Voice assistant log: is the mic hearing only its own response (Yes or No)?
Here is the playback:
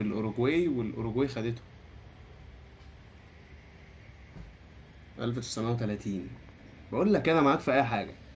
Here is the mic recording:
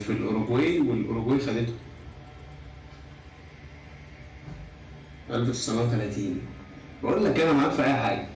Yes